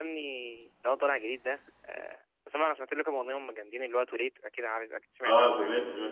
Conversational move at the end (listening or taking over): taking over